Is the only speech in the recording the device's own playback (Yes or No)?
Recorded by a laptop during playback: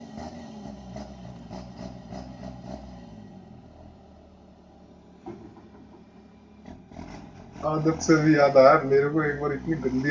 No